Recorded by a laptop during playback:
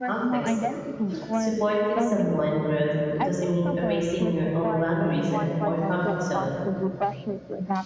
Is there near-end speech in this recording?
Yes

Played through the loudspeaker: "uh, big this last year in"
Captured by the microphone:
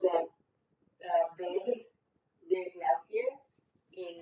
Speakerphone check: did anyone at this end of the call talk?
No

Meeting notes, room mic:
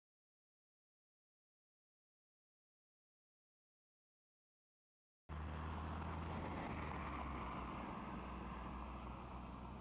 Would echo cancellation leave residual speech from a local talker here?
No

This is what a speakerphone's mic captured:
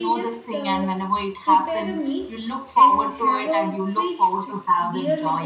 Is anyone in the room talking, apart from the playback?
Yes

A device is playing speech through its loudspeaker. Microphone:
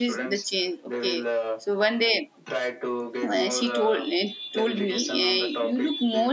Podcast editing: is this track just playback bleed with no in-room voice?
No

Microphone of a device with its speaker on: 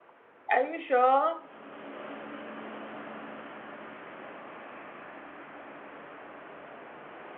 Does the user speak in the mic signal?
Yes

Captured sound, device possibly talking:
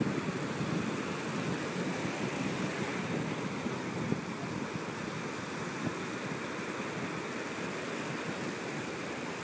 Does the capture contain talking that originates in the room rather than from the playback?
No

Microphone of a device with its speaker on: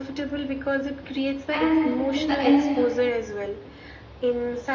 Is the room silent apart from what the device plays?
No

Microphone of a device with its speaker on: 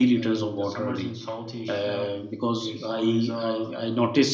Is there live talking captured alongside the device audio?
Yes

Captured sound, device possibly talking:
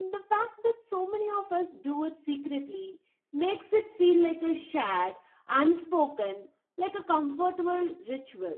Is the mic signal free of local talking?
No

